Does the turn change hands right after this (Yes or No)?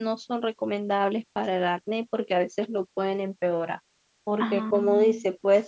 No